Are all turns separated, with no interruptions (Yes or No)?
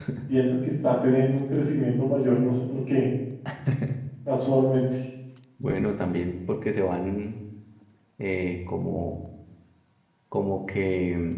Yes